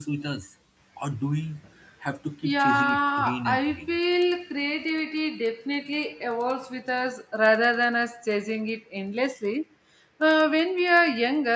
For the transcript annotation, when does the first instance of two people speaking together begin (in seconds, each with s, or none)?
2.4 s